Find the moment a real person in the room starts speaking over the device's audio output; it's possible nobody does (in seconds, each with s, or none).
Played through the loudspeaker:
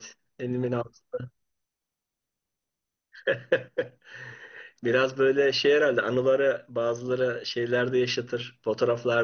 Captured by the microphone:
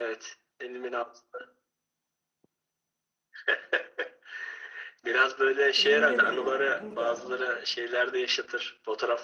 5.8 s